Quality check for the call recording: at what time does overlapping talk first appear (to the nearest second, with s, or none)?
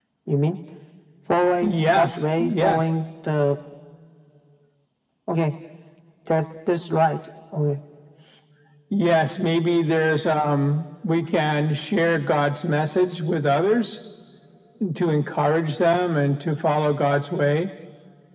2 s